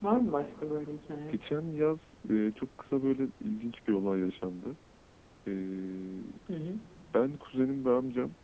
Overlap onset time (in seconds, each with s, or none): none